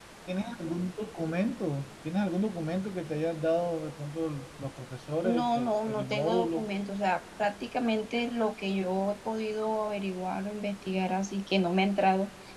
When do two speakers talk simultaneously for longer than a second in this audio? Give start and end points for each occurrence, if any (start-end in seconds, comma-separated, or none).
5.2-6.7